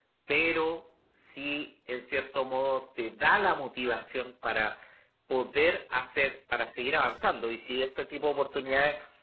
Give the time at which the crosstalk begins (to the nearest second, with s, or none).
none